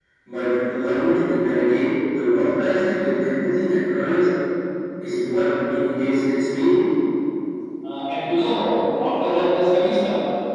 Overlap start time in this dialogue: none

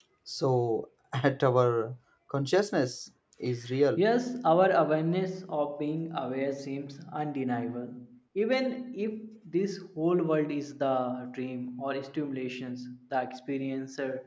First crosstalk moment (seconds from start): none

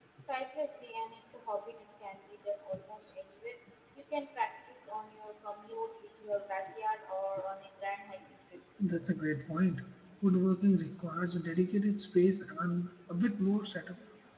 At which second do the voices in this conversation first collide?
none

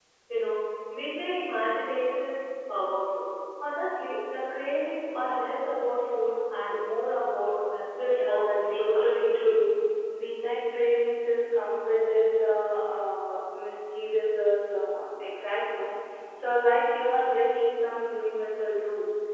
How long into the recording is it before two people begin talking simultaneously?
8.1 s

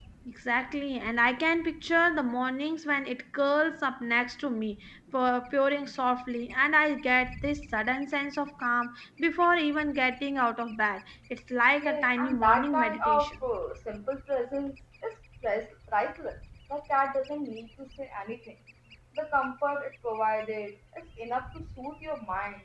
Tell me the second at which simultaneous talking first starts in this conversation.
11.8 s

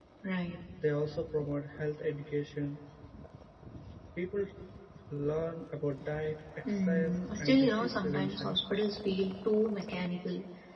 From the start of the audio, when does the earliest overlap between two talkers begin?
6.6 s

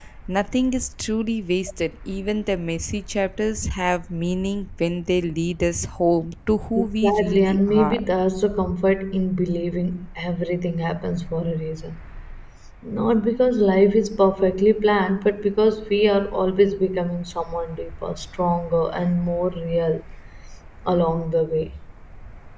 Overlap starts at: 6.8 s

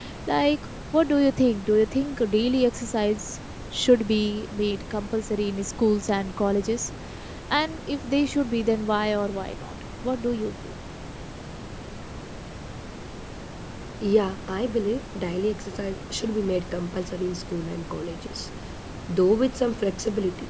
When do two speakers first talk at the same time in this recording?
none

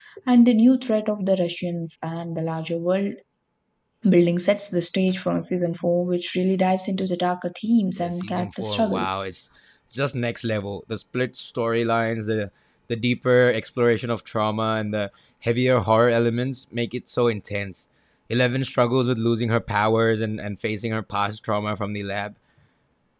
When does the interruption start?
8.0 s

